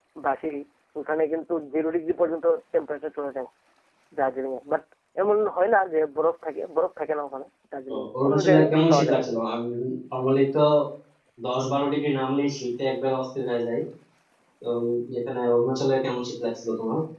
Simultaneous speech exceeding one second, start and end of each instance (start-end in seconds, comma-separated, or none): 7.9-9.2